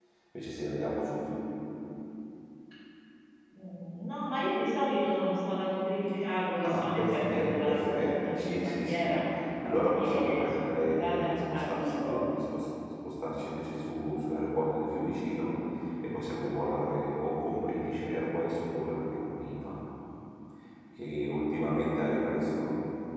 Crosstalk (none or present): present